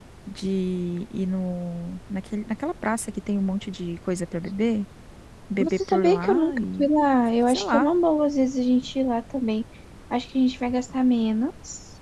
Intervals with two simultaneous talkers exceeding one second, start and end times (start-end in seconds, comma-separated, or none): 5.6-6.9